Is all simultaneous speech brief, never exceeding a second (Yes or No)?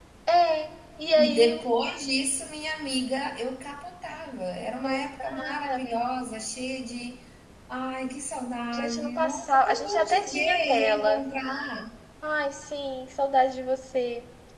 No